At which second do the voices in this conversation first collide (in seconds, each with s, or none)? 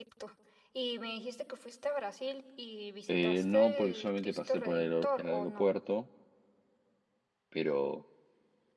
3.1 s